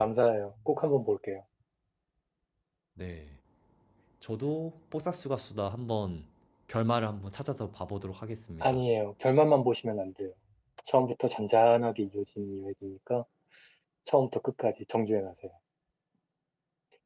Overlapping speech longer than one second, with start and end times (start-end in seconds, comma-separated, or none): none